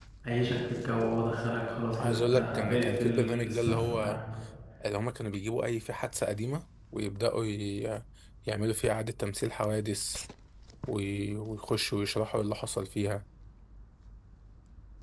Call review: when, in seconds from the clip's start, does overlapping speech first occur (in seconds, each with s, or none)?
1.9 s